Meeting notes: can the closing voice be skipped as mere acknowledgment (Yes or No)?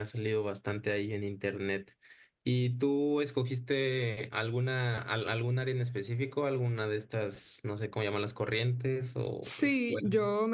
No